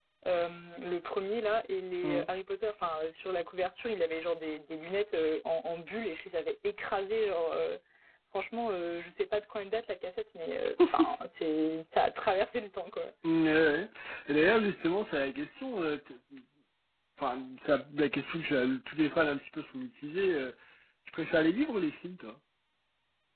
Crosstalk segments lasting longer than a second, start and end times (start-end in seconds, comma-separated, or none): none